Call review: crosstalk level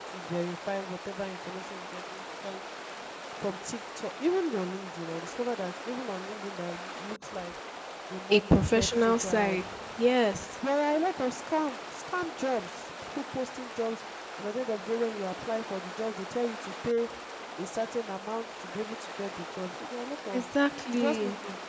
present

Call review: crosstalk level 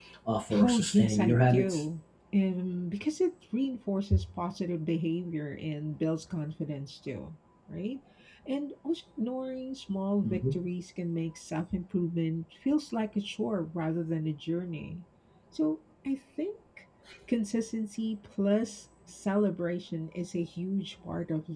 present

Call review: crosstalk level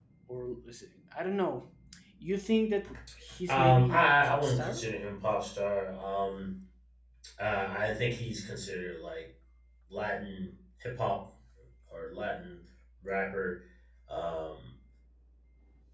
present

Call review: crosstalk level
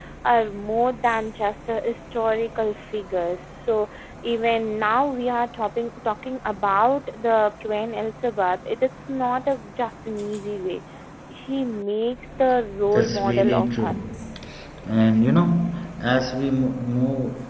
present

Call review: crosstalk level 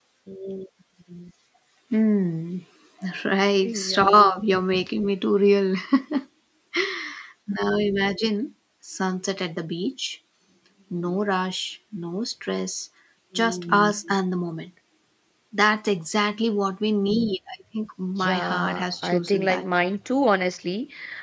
present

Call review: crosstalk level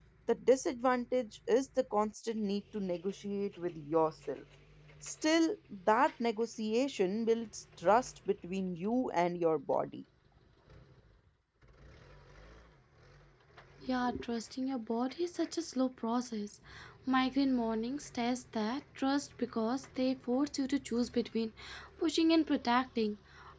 none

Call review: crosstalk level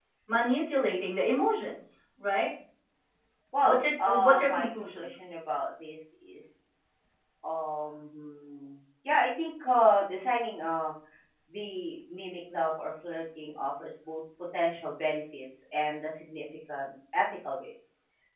present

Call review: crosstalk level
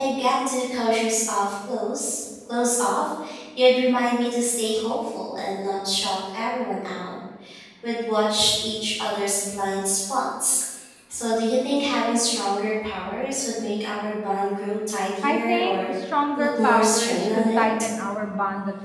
present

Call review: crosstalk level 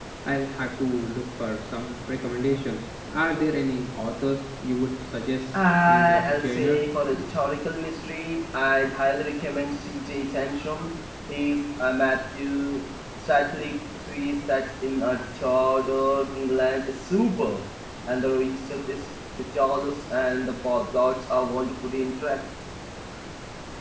present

